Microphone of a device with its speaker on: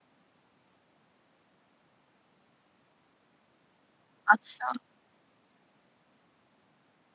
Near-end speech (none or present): present